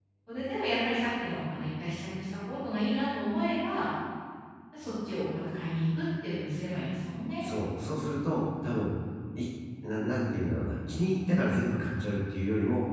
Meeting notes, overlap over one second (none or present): none